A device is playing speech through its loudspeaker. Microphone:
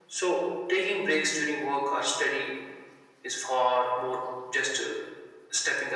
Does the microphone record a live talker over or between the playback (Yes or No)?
No